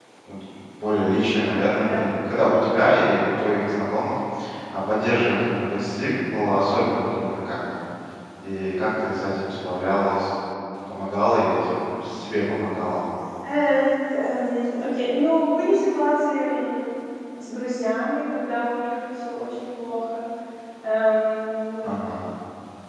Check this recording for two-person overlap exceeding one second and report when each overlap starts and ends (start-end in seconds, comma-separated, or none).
none